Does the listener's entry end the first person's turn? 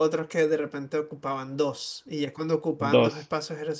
No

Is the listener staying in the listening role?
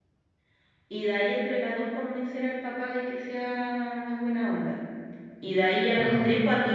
Yes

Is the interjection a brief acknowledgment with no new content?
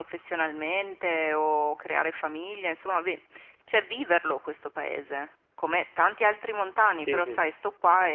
Yes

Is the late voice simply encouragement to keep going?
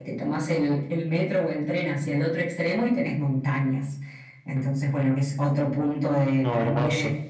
Yes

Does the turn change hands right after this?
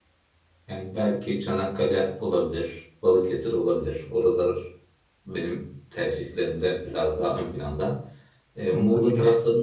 No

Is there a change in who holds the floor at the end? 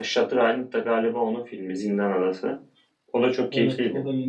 Yes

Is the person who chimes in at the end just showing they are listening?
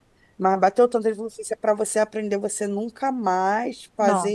Yes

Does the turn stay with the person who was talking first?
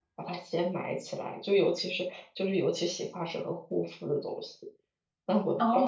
No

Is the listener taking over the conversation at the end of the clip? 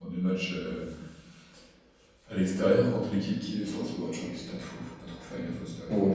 Yes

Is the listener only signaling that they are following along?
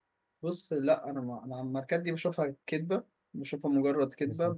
Yes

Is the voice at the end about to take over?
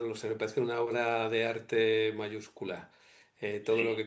No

